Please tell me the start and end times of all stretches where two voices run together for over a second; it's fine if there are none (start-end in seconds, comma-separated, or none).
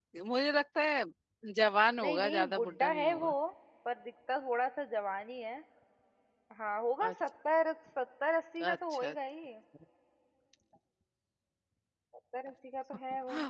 2.0-3.3